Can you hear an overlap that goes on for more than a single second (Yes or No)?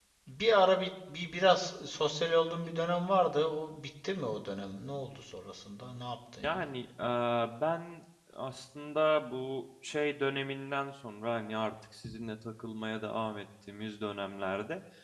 No